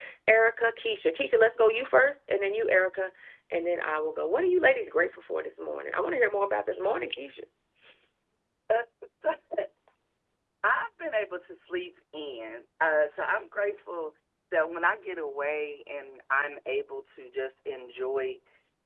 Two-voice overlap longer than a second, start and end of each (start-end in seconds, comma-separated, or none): none